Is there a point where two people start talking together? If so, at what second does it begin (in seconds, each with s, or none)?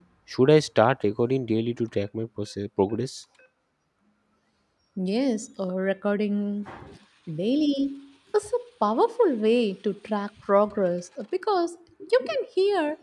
none